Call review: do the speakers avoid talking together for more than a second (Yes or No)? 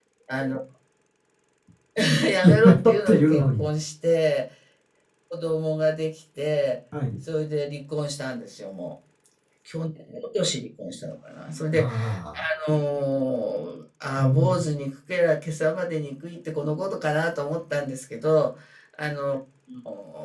No